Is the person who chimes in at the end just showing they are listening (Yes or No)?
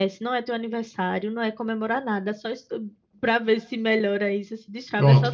Yes